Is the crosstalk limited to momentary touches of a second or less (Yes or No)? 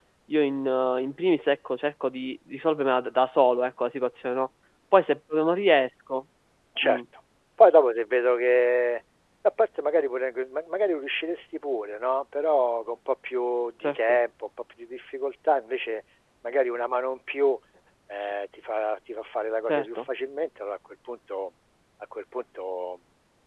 Yes